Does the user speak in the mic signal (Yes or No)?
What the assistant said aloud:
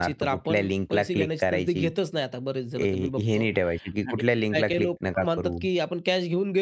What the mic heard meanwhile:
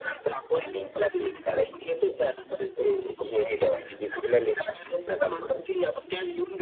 No